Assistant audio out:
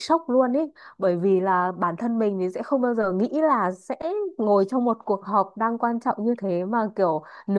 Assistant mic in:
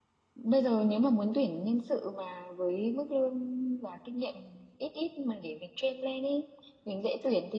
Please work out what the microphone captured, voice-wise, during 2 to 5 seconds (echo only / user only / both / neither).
user only